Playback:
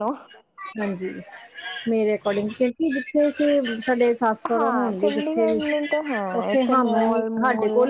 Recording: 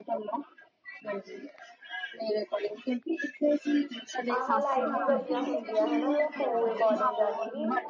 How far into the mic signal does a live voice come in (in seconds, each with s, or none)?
4.3 s